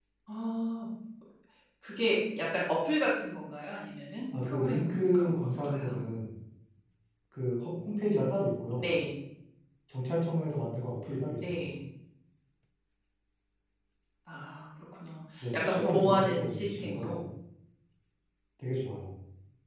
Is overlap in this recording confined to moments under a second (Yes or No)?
No